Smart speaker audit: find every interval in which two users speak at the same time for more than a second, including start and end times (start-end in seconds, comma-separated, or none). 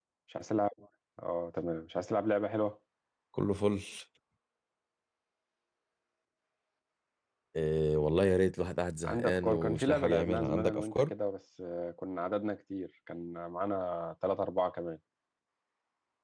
9.0-11.1